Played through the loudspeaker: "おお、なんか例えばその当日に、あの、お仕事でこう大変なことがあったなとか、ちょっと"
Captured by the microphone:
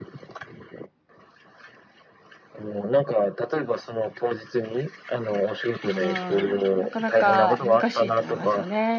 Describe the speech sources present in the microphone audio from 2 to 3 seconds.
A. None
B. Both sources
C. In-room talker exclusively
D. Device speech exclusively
D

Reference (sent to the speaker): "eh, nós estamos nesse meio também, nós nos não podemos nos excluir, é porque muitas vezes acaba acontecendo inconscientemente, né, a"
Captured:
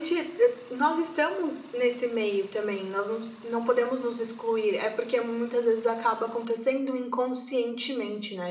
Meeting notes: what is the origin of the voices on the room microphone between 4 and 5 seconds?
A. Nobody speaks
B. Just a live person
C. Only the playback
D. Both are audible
C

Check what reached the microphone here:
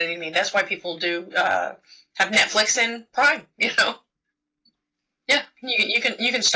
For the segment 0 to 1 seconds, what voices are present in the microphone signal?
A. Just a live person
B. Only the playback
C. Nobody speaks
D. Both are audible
B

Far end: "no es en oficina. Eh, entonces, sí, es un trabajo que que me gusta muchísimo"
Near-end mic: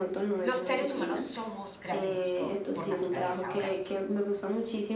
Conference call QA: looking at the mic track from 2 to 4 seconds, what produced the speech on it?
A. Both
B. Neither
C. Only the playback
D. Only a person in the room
A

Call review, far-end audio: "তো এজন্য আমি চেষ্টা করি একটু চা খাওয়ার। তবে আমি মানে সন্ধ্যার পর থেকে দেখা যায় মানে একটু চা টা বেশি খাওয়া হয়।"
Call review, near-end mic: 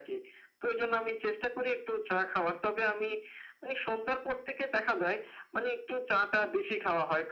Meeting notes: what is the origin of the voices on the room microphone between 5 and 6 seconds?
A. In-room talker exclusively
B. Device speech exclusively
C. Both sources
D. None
B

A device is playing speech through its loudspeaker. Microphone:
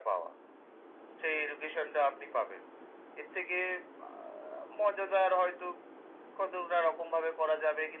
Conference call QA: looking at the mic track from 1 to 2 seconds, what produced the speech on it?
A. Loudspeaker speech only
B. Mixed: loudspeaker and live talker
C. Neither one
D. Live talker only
A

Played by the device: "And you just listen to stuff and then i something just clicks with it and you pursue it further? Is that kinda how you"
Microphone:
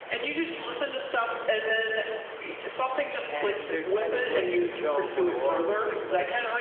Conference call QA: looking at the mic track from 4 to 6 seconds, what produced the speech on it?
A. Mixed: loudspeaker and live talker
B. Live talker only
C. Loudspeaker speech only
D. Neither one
A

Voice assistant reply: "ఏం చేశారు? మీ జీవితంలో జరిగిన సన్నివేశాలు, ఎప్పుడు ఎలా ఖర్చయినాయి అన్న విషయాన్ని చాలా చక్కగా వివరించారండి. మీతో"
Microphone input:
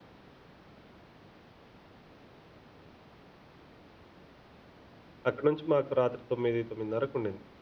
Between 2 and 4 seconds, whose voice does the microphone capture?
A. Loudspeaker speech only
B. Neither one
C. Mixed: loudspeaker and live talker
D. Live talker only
B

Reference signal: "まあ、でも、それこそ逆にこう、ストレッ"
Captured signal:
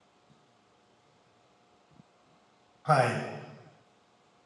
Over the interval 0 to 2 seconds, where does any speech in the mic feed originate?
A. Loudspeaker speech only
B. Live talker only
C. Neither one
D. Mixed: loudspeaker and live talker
C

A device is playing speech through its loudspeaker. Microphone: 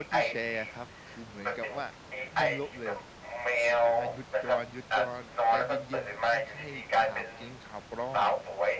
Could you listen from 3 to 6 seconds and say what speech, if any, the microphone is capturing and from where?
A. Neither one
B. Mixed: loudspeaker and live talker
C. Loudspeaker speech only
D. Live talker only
B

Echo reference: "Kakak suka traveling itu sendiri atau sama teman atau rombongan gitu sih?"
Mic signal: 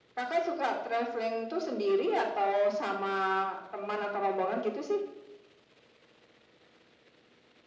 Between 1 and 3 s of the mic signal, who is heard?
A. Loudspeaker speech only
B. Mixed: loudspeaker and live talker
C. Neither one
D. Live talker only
A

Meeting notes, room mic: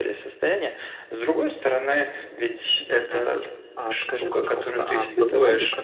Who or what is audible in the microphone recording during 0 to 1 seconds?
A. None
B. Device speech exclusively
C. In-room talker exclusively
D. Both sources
B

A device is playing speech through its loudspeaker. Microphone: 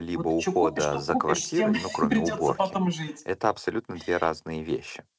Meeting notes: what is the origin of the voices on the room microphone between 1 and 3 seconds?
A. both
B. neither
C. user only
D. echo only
A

